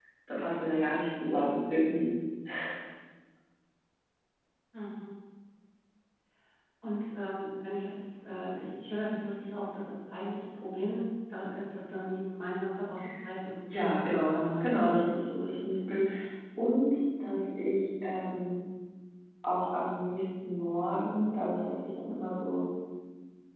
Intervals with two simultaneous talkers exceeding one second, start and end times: 13.7-14.9

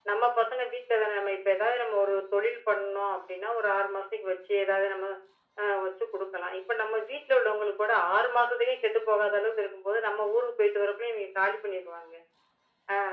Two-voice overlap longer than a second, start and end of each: none

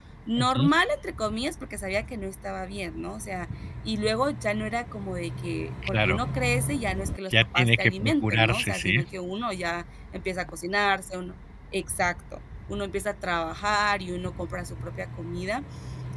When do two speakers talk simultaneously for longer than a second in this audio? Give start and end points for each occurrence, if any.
7.6-9.0

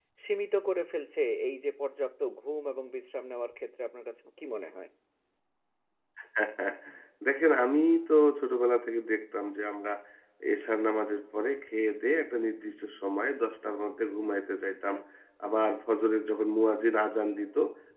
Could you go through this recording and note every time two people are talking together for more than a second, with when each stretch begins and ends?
none

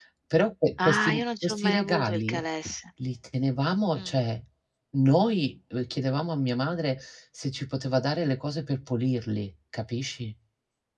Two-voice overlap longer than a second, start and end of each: 0.8-2.4

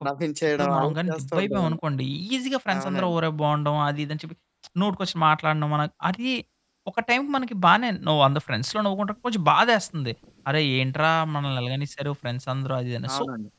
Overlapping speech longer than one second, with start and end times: 0.6-1.8

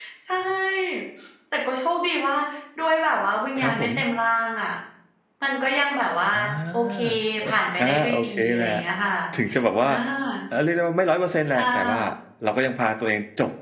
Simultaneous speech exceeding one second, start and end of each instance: 7.4-8.7

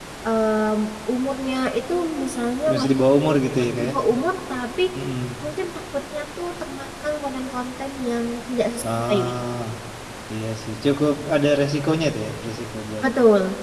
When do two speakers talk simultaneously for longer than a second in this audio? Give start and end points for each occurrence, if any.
none

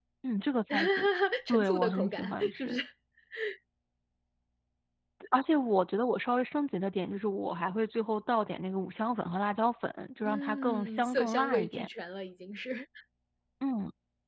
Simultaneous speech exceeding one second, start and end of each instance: 1.5-2.8, 10.2-11.9

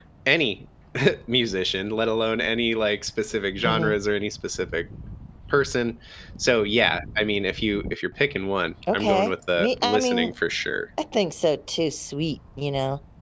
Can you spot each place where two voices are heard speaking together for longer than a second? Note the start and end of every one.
8.9-10.3

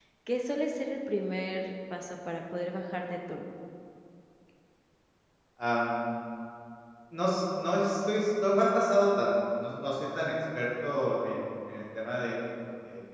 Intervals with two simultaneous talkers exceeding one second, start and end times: none

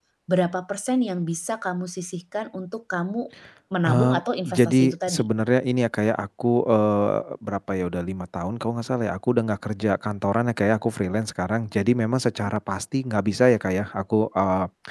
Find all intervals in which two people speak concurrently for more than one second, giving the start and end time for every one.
3.8-5.3

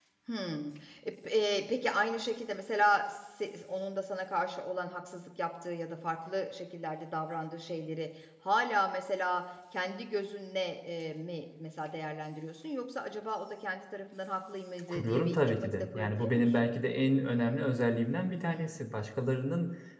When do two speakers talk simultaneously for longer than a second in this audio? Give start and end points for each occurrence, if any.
14.9-16.7

